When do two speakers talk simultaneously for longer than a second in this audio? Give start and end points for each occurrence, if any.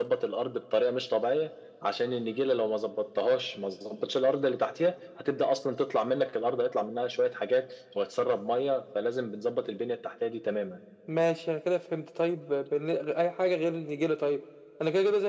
none

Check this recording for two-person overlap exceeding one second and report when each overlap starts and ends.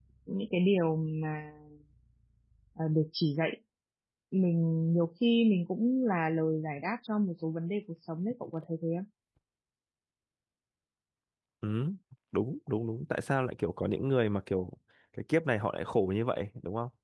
none

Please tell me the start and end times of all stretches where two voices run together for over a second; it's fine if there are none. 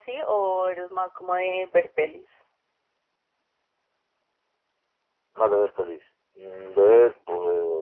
none

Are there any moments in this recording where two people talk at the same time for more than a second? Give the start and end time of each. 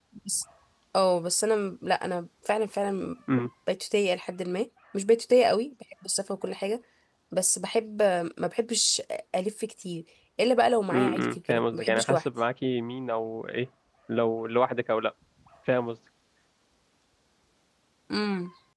10.9-12.2

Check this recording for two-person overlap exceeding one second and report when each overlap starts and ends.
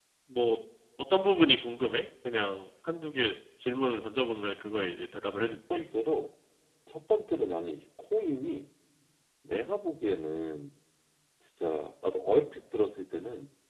none

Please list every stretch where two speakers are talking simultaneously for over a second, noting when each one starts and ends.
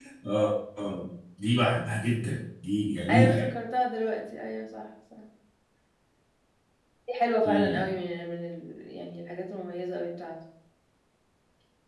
none

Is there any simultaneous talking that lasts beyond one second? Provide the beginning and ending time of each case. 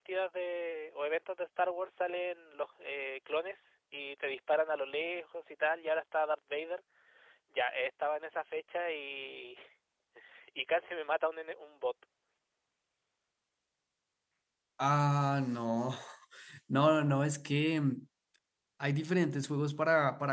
none

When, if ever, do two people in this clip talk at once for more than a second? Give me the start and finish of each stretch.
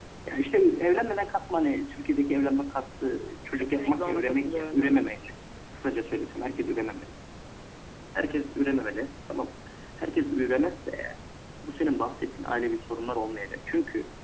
3.5-5.1

